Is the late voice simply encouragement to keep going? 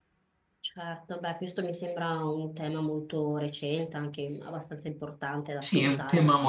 No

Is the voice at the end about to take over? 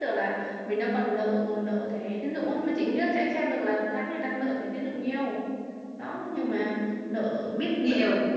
Yes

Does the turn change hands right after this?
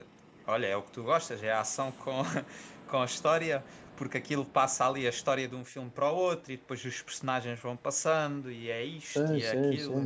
Yes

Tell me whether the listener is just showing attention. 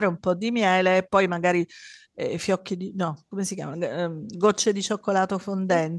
Yes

